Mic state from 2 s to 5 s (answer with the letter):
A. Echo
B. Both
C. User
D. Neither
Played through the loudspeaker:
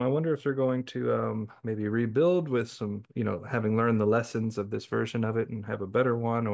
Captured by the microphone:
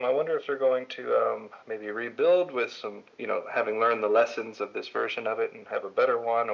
A